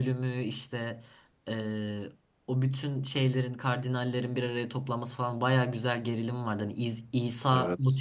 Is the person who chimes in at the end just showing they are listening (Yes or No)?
Yes